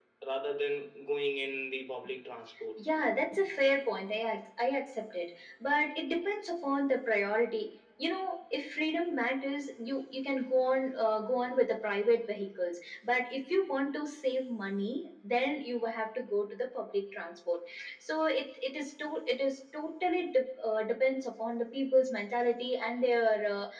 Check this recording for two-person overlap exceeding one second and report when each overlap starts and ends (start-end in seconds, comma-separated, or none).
none